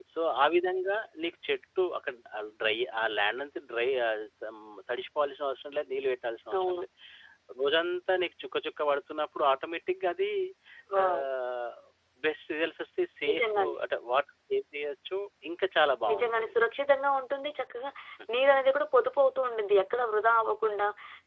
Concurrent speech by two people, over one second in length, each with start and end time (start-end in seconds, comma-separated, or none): none